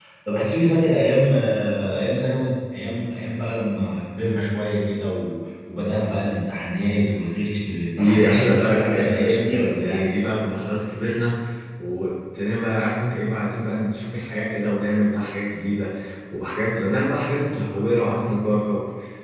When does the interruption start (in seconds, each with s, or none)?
8.0 s